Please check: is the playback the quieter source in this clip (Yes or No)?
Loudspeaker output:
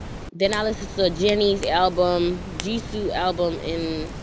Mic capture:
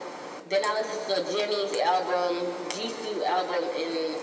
No